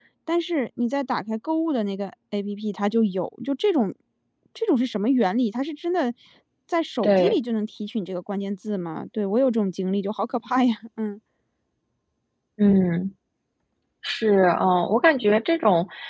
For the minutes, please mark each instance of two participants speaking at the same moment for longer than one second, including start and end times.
none

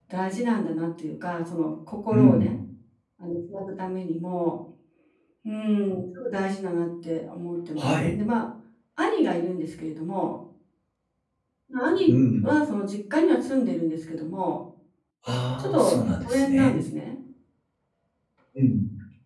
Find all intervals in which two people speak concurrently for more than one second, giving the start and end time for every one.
15.6-16.8

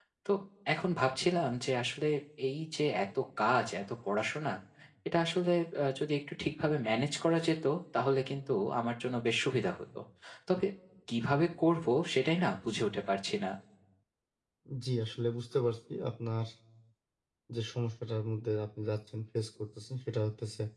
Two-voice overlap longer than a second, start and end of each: none

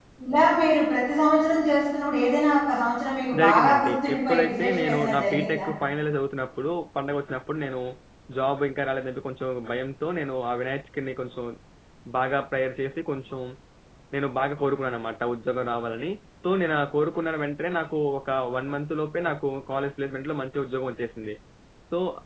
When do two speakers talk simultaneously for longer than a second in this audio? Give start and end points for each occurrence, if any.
3.4-5.6

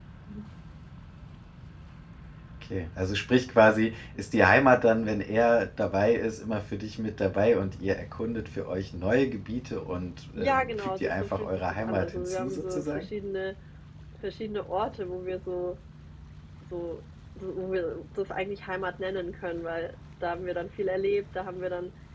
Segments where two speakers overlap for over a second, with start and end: 10.4-13.0

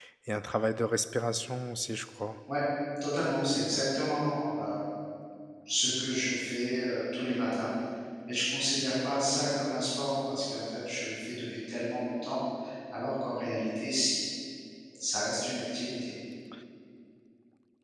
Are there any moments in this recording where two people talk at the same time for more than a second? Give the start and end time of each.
none

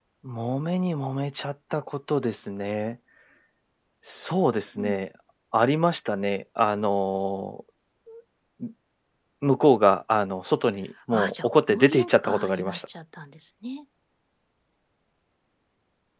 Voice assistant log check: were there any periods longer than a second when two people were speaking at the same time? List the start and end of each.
11.1-12.8

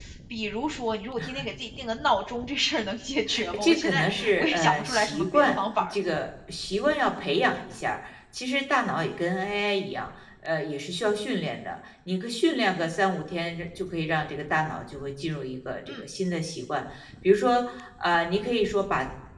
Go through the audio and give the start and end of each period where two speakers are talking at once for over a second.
3.3-5.9

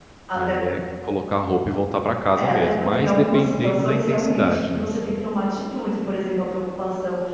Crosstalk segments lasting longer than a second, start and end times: 2.4-4.9

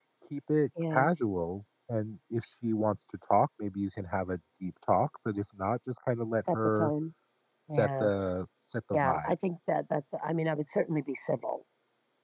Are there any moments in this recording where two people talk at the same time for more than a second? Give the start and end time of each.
none

